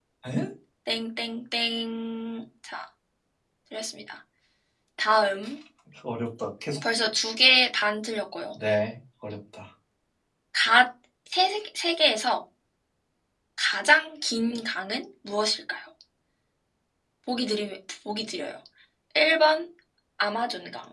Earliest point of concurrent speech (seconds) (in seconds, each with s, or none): none